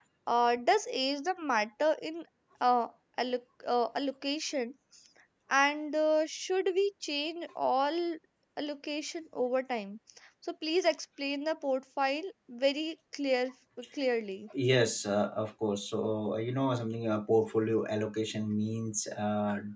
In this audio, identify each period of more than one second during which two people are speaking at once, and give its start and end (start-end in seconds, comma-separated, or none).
none